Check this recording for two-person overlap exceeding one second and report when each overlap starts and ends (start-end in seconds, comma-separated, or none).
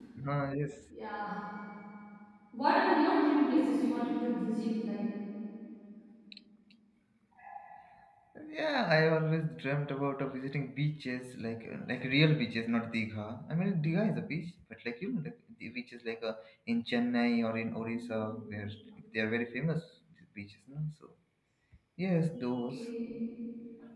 none